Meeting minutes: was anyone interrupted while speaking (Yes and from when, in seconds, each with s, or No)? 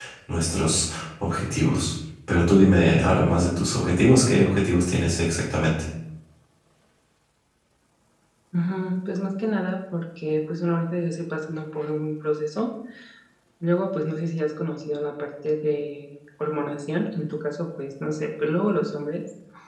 No